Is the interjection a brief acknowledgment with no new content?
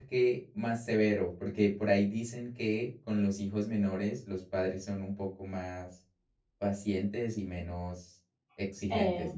No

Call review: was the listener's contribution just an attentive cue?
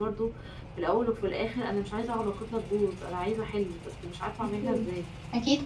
No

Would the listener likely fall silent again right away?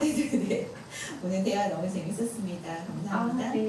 No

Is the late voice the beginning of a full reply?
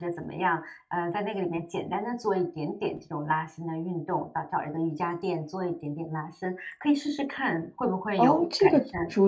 Yes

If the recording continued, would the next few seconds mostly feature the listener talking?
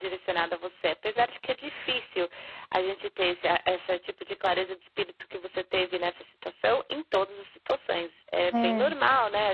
No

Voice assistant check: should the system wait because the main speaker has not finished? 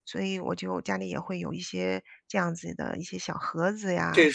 No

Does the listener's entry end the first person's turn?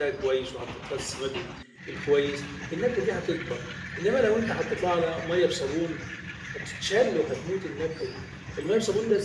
No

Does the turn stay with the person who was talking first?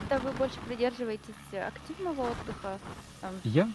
No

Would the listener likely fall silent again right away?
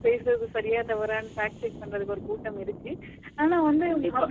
Yes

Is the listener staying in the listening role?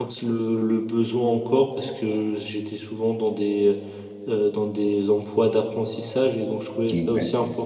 Yes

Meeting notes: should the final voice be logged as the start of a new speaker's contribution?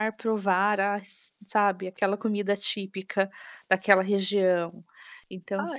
No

